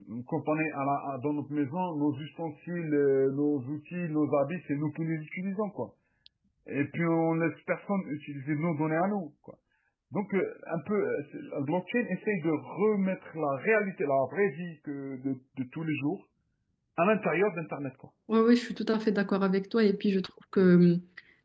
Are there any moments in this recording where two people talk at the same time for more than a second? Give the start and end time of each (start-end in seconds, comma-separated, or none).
none